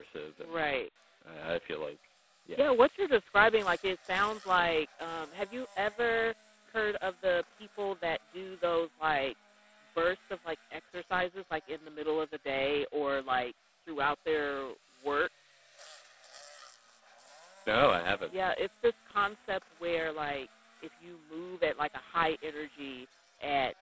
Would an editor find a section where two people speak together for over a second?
No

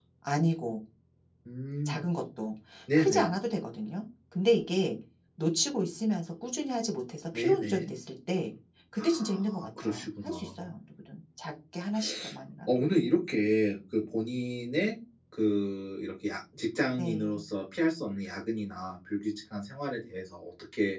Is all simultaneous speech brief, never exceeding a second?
No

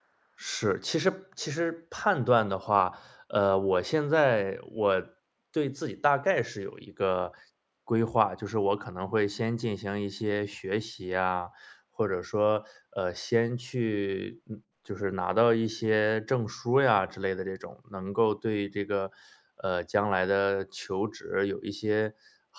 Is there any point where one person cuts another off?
No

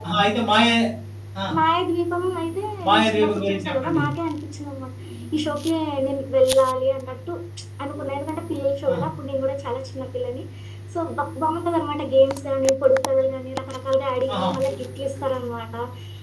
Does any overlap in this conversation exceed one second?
Yes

